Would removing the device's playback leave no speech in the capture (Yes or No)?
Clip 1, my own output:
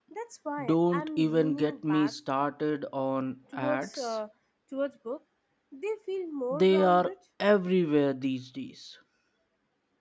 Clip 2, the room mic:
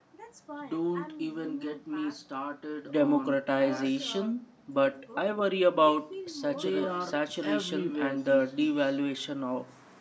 No